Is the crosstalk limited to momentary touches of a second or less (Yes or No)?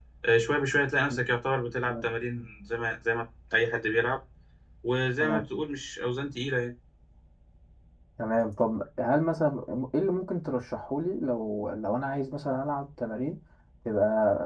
Yes